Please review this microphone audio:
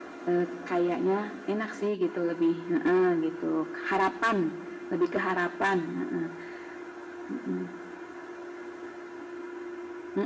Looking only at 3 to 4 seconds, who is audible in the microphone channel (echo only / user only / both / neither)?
echo only